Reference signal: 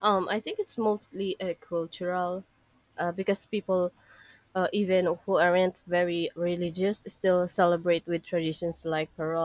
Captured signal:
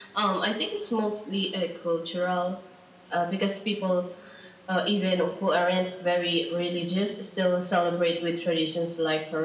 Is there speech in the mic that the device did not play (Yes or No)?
No